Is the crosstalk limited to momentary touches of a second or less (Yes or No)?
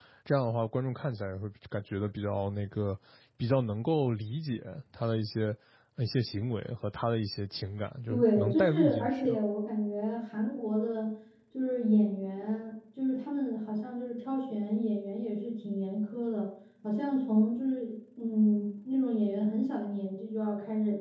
No